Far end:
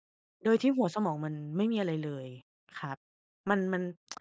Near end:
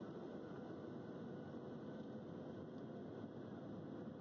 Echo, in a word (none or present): none